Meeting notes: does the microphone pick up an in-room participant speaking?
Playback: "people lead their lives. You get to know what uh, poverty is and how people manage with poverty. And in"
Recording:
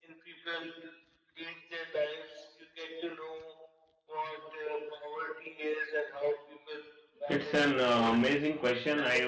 Yes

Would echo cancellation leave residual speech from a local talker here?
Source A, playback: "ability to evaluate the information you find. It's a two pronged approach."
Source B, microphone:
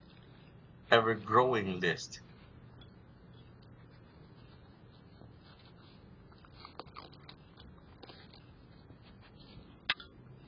Yes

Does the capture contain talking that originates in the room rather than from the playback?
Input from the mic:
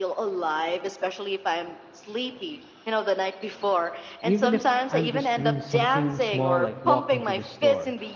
Yes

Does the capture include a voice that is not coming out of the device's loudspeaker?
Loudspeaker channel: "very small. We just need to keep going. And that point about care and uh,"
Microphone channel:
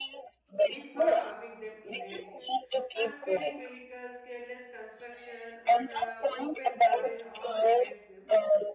Yes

